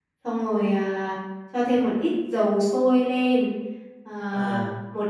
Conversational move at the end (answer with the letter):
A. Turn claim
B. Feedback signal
B